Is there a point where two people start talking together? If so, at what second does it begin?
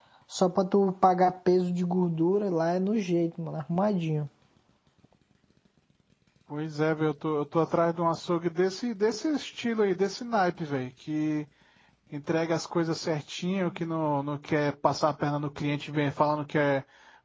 none

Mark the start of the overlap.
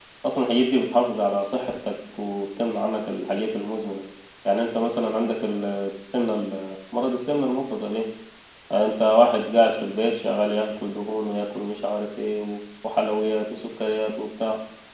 none

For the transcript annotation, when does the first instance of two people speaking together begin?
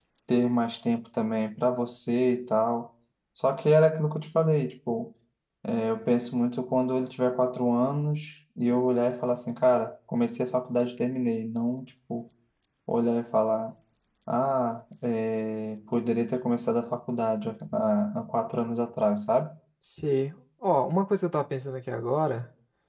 none

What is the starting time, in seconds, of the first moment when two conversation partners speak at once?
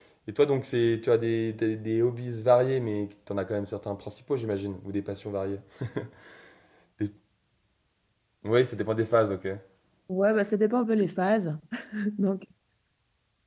none

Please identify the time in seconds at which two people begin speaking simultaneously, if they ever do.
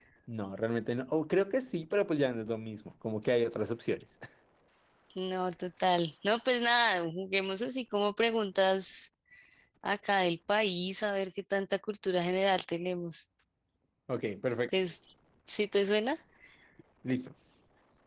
none

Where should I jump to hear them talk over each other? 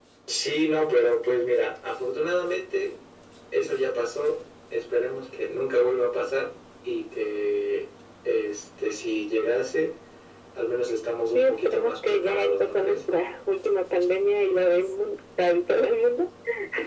11.3 s

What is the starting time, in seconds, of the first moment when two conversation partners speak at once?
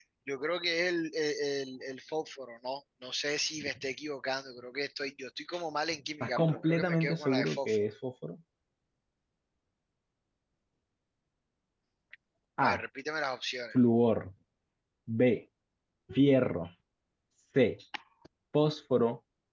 6.2 s

